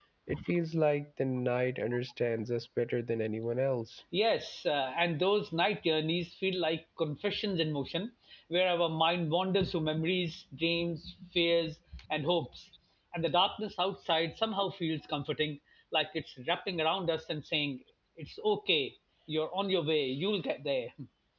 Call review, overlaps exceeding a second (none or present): none